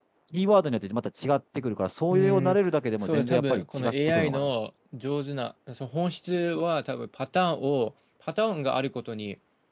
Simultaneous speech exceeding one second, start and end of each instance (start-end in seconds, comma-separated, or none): 3.0-4.5